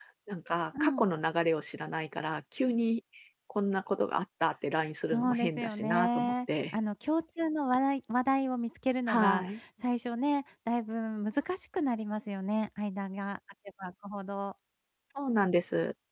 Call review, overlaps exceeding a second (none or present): present